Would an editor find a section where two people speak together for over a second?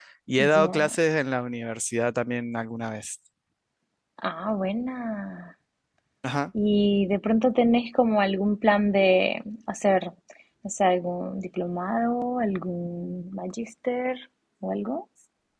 No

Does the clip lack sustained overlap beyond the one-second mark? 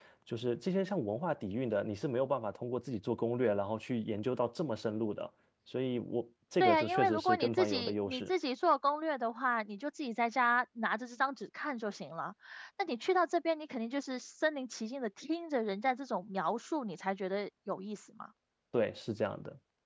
No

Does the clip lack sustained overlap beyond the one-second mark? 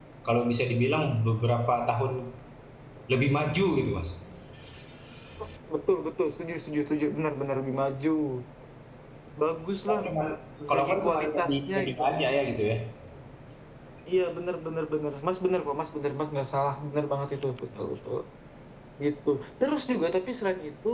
No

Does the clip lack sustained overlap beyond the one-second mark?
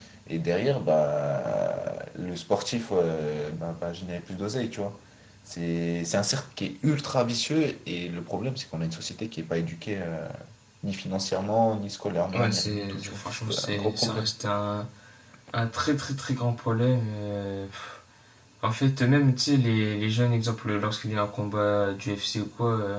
No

